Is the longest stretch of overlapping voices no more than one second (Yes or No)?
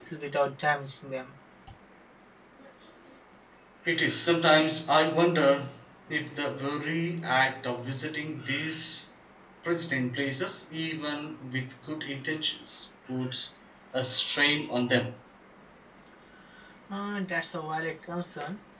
Yes